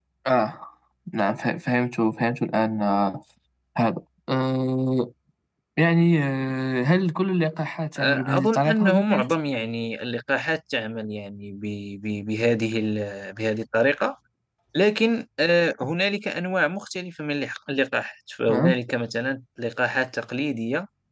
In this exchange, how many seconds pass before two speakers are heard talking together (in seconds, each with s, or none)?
8.0 s